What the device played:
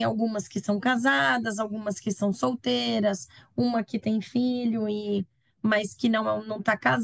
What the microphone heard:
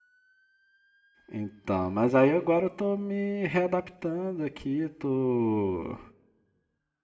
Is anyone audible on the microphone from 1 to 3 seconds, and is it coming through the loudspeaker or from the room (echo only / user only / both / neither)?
user only